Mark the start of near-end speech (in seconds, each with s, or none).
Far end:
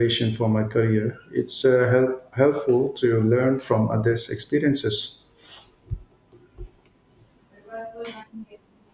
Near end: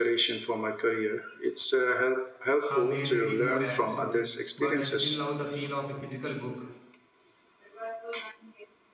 2.6 s